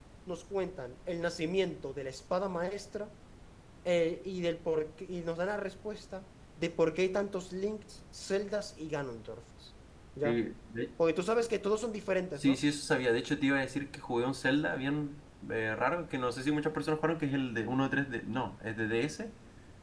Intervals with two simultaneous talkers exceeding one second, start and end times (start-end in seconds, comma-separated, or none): none